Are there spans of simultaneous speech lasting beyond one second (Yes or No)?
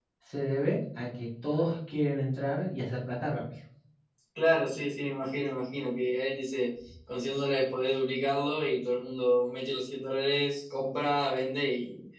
No